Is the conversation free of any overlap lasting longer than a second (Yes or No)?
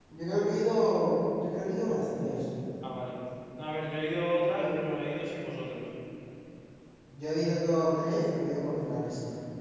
Yes